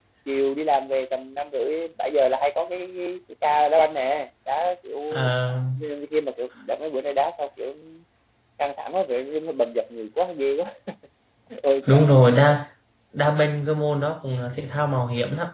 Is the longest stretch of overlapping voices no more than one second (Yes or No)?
Yes